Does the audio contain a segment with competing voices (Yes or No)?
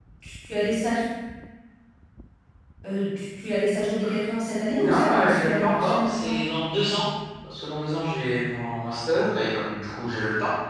Yes